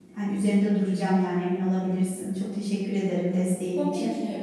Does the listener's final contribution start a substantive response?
Yes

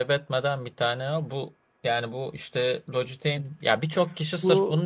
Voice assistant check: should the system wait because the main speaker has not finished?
Yes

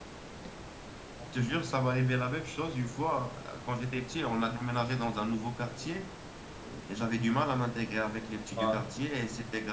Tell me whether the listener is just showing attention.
Yes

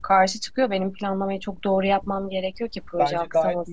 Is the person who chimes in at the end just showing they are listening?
No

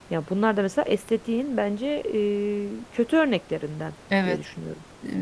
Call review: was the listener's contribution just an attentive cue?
No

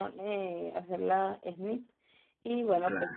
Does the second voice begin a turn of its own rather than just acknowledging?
No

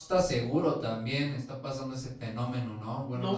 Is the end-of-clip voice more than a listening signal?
Yes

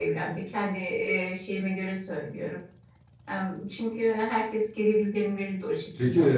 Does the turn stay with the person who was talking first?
No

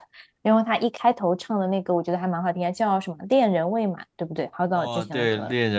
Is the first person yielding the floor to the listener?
Yes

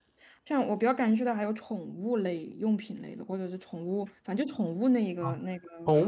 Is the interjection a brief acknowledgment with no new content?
No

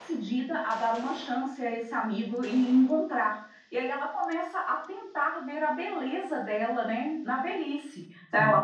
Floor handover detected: No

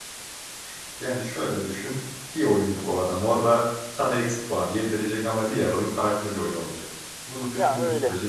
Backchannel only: Yes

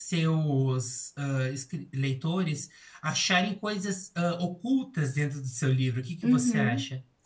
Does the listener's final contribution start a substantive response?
Yes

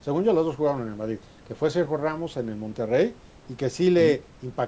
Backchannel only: Yes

